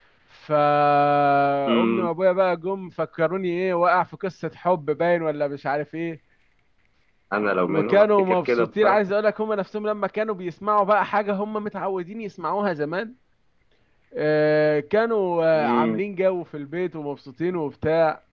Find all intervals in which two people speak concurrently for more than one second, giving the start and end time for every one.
7.7-9.0

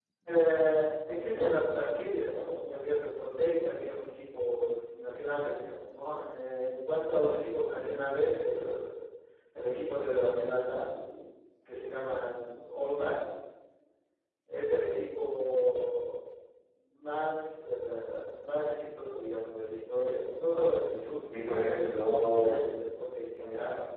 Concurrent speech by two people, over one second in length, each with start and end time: 21.3-22.7

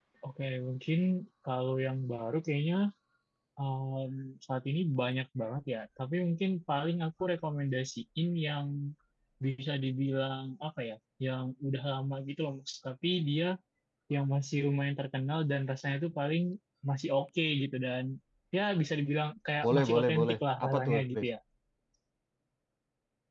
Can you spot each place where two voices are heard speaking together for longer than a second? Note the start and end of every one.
19.6-21.3

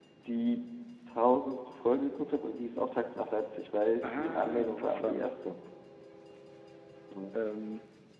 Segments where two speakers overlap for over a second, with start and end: 4.0-5.2

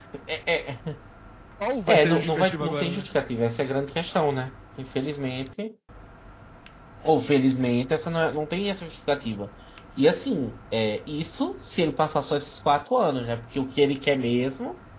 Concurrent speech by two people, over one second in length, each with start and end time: 1.9-3.1

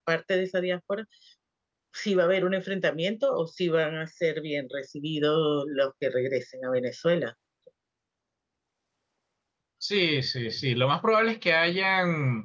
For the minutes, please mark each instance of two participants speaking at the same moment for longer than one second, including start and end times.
none

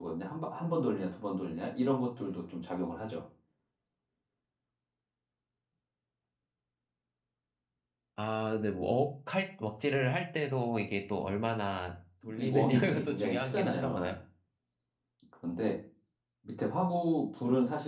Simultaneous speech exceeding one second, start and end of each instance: 12.3-14.1

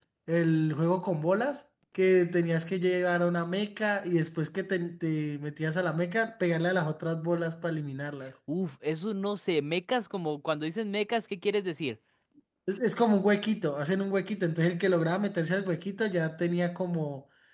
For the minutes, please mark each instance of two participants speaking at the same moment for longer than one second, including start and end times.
none

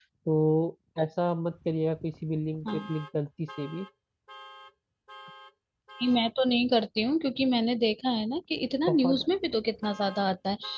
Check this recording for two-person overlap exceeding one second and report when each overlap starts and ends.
none

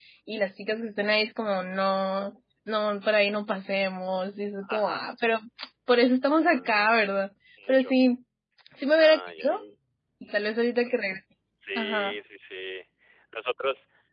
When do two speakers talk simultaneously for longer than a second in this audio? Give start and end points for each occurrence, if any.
none

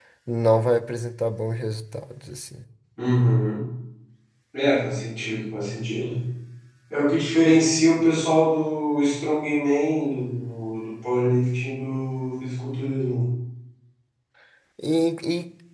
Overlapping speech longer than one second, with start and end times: none

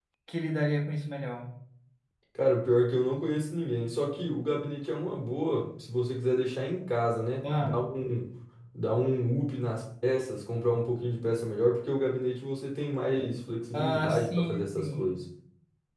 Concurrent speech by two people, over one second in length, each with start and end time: 13.7-15.2

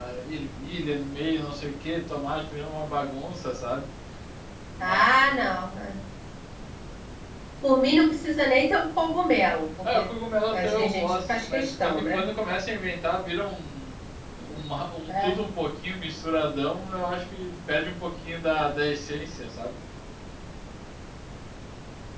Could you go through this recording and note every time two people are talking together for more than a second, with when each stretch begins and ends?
10.5-12.2

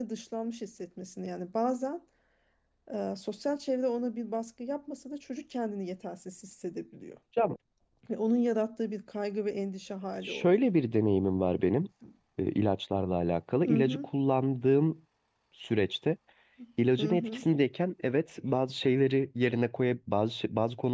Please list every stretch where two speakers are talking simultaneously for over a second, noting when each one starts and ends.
none

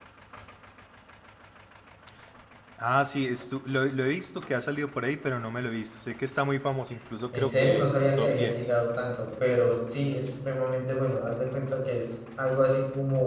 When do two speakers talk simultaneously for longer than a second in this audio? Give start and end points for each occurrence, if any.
7.3-8.7

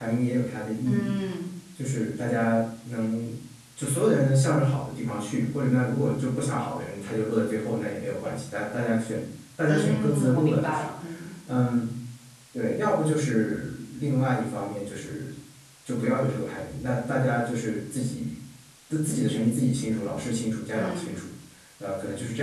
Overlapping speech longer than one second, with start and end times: 9.7-10.9

